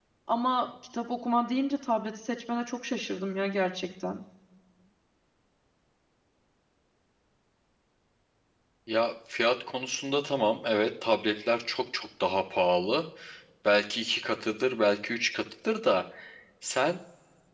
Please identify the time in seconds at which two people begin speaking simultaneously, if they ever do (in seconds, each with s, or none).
none